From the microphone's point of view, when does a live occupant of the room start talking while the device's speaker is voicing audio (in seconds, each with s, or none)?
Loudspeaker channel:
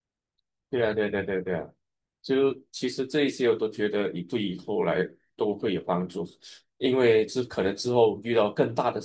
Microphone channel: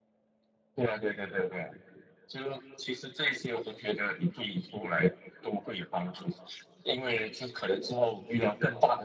none